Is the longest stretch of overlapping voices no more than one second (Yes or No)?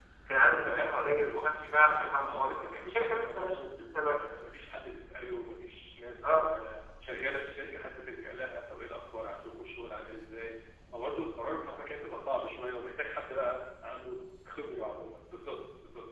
No